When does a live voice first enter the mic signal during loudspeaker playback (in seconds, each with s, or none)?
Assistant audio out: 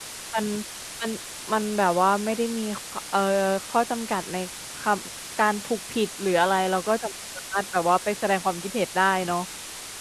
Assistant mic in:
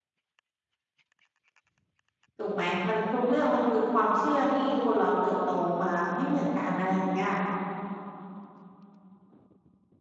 2.4 s